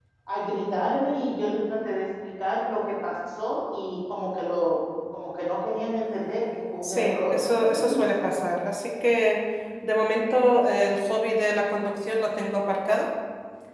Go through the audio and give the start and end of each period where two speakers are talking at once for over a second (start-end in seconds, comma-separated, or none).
6.8-8.3